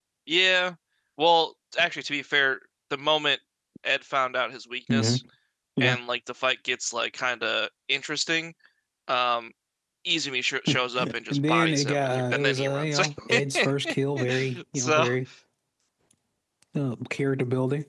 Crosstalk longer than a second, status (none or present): present